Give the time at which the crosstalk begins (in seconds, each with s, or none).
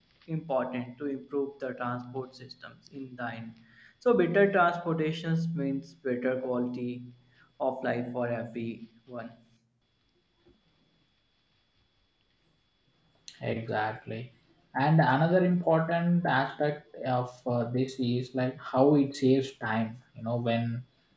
none